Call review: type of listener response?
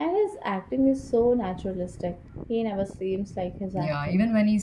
taking over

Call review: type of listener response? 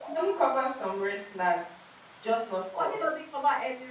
taking over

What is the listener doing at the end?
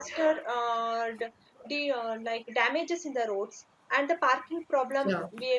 listening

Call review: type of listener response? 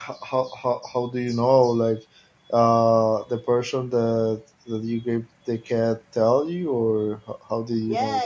taking over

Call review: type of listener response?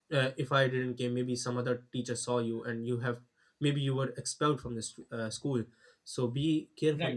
listening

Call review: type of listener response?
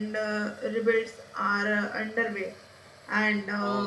taking over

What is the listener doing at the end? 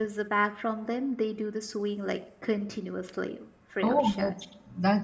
taking over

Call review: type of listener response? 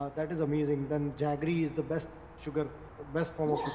taking over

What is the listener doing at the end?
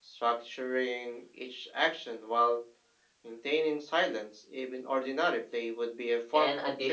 taking over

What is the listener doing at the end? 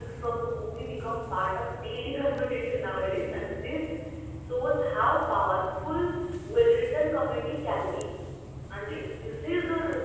listening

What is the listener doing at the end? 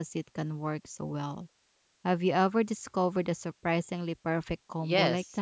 taking over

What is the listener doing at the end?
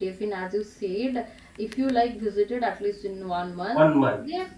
listening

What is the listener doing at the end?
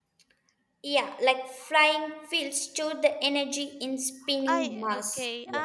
taking over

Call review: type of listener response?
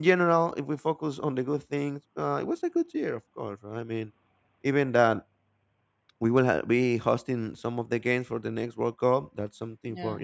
listening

